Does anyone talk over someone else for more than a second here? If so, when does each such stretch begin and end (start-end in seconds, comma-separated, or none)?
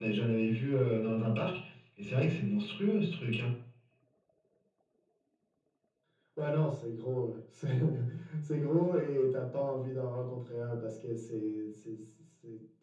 none